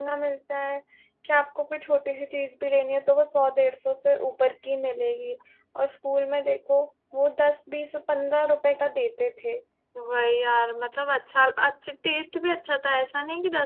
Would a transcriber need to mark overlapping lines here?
No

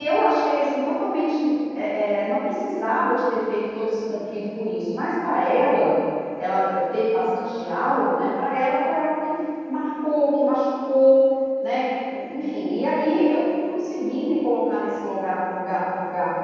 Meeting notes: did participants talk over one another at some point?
No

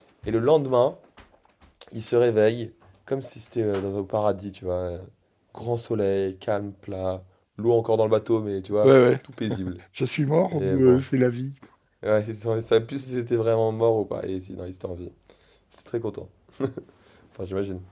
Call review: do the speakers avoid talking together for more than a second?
Yes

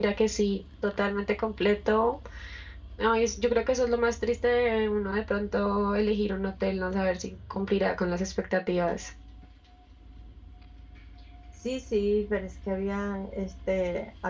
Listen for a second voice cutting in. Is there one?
No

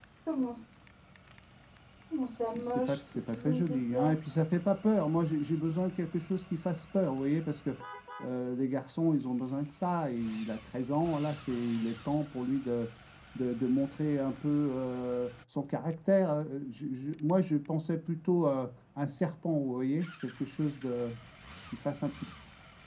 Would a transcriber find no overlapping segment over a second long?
No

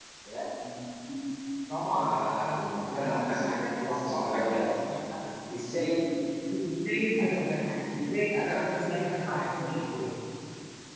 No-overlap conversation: No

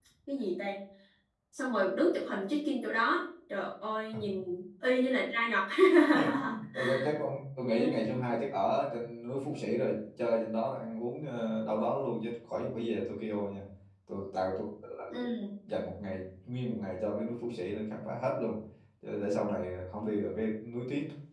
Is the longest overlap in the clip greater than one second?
No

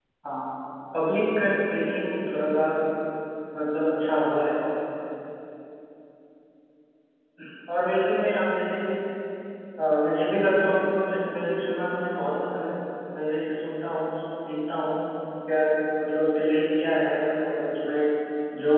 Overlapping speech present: No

